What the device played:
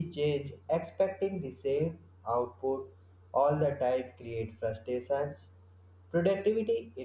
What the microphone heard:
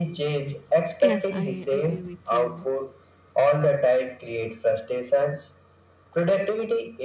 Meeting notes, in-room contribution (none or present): present